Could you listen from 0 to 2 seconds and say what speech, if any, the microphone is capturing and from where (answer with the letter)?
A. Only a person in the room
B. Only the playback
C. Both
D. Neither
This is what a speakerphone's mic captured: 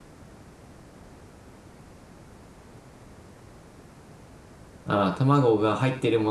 D